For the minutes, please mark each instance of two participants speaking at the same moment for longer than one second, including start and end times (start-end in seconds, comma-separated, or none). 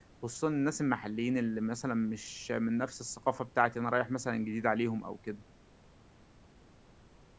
none